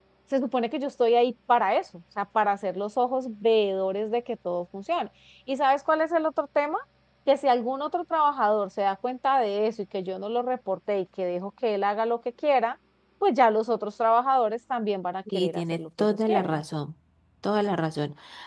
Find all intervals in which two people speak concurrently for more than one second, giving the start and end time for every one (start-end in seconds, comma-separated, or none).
15.3-16.6